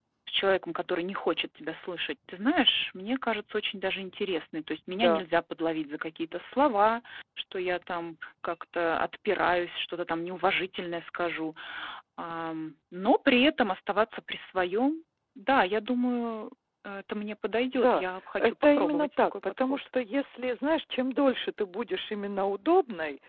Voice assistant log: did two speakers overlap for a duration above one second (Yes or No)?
Yes